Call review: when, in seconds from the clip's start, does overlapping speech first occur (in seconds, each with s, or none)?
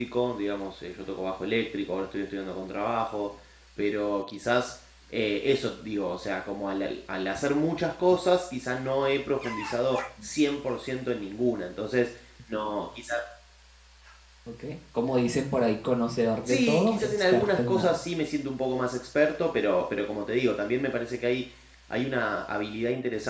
16.4 s